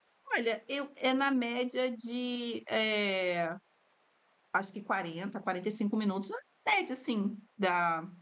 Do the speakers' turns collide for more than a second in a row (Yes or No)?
No